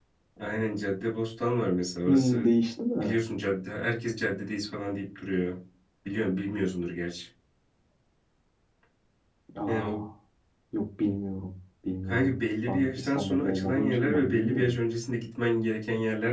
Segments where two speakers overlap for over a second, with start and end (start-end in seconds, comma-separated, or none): 12.1-14.7